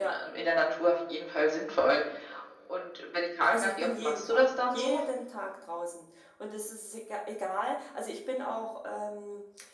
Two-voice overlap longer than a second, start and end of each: 3.5-5.0

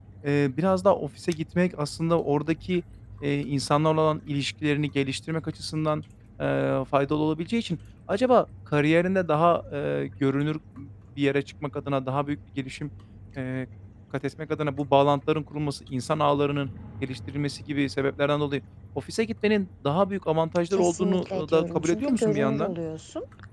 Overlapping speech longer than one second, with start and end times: 20.7-22.7

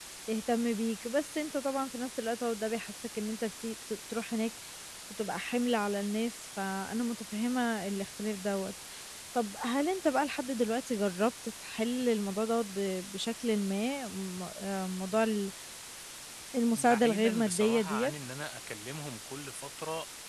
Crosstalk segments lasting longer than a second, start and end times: 16.8-18.1

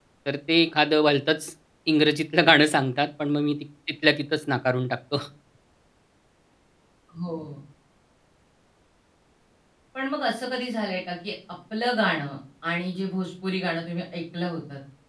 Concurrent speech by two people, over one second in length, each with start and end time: none

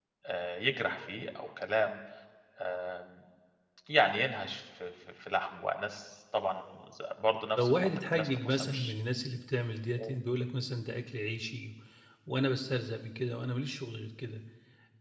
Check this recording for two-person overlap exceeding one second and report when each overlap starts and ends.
7.6-8.9

